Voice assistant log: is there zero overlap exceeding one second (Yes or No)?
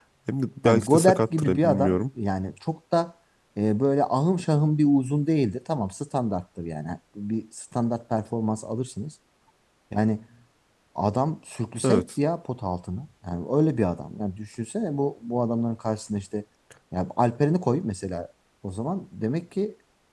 No